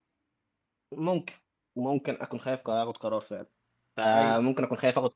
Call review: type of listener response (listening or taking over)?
listening